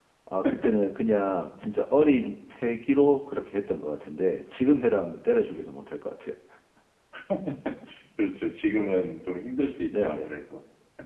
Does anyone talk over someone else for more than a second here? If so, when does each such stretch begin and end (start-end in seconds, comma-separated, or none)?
none